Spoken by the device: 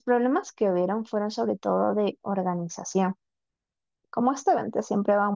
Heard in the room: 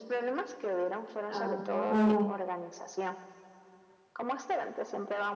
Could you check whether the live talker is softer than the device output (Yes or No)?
No